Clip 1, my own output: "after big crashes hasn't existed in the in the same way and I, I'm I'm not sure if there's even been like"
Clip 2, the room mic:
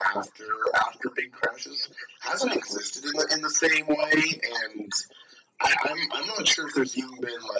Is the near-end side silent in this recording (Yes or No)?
Yes